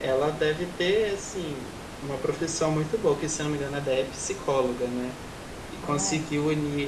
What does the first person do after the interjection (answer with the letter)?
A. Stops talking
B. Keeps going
B